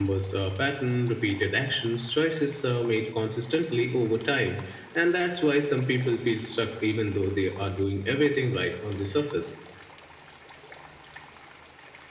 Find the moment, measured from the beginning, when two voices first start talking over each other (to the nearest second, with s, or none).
none